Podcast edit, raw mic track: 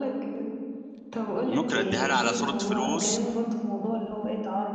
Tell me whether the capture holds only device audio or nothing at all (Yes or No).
No